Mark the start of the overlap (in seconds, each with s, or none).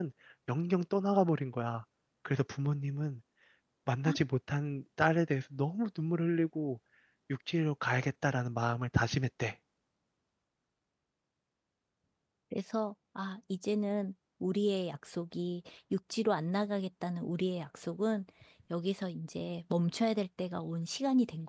none